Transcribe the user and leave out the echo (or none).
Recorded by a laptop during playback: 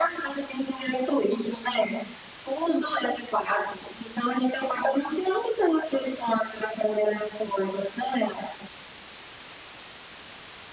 none